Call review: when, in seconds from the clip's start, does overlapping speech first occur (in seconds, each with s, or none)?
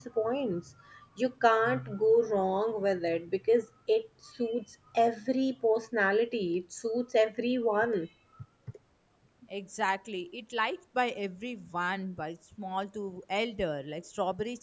none